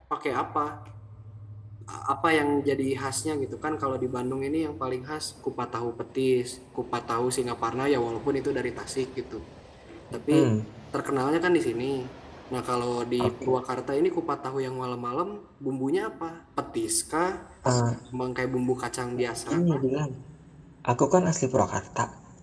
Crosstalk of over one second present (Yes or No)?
No